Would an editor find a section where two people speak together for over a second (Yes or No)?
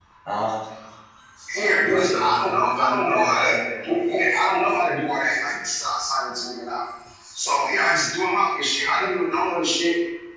Yes